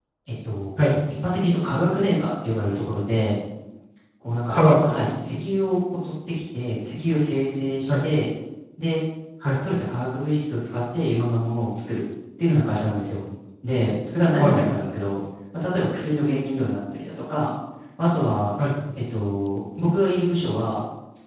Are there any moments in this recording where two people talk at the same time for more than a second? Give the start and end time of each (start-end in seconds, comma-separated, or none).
none